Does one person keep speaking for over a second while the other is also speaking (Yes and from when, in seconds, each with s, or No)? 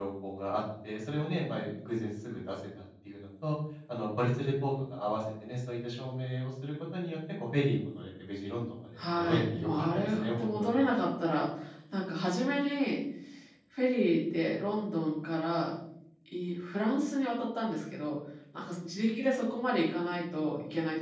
Yes, from 9.0 s